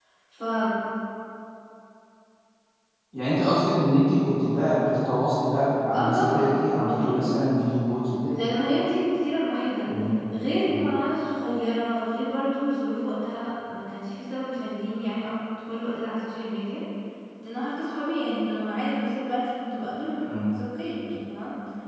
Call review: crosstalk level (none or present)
present